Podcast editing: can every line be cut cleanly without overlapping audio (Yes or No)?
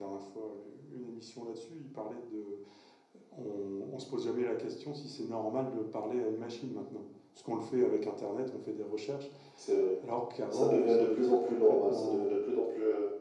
No